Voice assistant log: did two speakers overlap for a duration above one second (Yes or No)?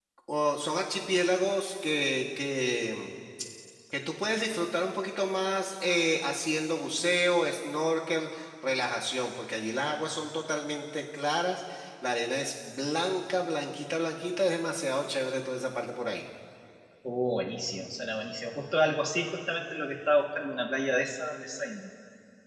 No